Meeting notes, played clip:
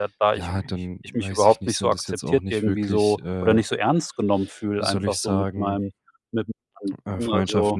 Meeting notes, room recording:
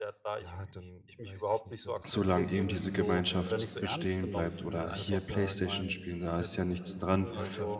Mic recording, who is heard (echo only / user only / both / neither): both